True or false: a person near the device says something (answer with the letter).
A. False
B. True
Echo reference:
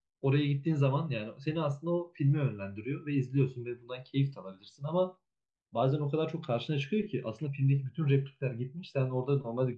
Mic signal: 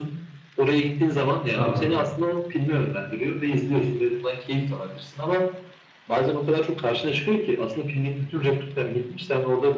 B